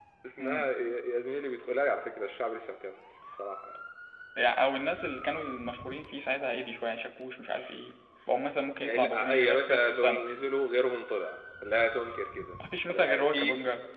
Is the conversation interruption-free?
No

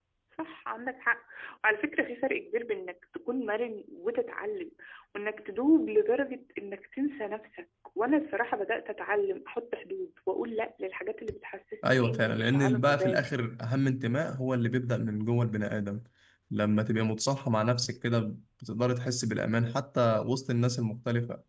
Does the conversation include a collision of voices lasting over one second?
Yes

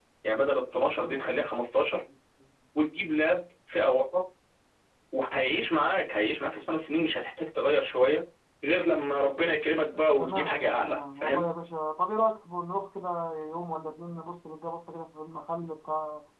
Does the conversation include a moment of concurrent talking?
Yes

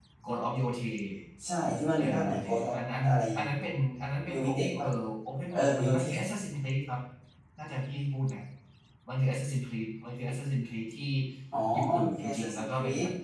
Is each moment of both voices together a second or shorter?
No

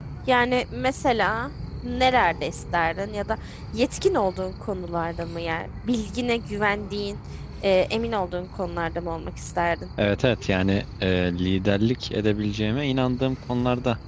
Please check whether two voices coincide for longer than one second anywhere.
No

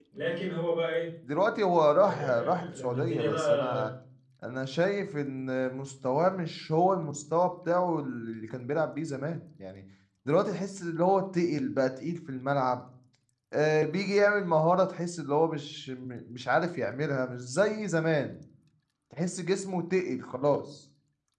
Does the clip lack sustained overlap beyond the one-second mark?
No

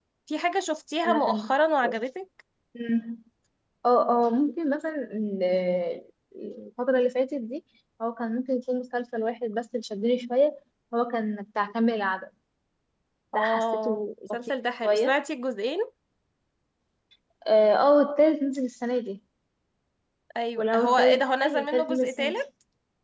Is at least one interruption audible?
Yes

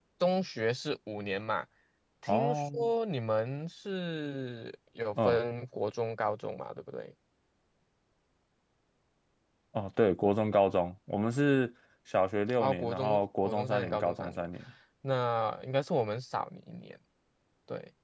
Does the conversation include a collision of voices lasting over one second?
Yes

